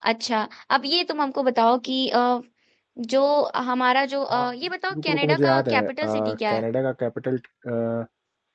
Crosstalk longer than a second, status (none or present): present